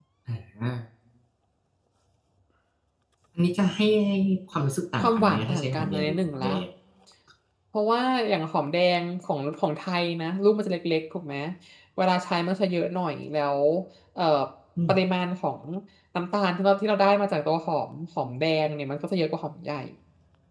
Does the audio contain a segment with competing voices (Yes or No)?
Yes